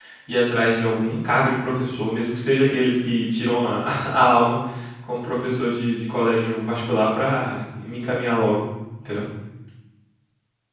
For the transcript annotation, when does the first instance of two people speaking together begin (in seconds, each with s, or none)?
none